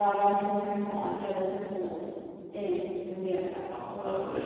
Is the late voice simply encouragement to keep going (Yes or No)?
No